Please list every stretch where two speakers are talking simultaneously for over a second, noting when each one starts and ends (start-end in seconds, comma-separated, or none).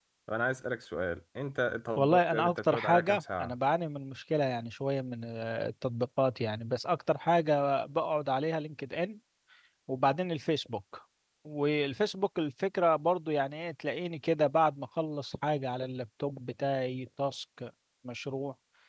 2.0-3.5